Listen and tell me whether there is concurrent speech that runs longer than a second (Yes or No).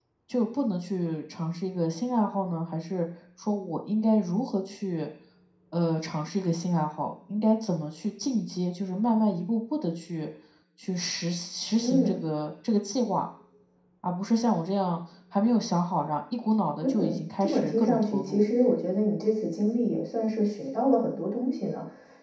Yes